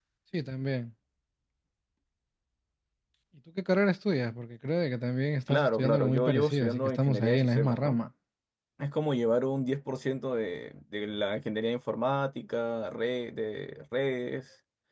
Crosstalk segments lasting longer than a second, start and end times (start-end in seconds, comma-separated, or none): 5.5-8.0